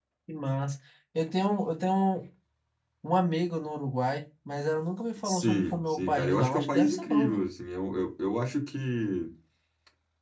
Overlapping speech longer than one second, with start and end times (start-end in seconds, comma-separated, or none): 5.2-7.4